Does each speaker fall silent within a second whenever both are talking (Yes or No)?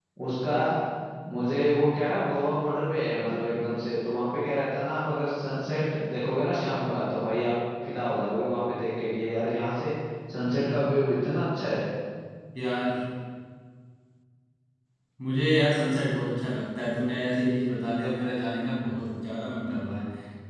Yes